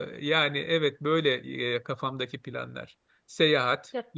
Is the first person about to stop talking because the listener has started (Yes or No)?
No